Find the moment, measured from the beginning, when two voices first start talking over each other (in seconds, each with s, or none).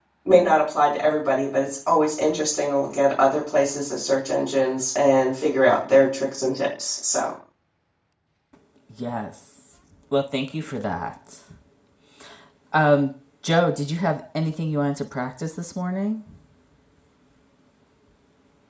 none